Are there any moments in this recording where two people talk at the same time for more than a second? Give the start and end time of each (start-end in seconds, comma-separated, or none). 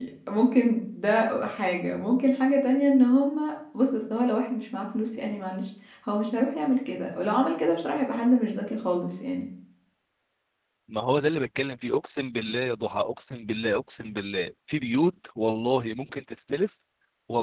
none